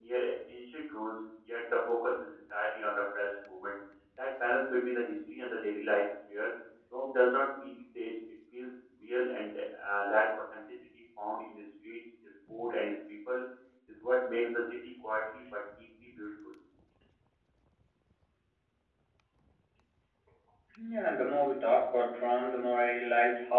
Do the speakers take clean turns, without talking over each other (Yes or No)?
Yes